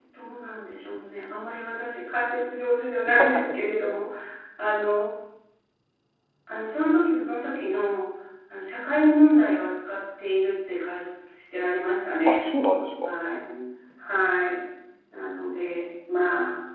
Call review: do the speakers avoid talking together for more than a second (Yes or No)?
Yes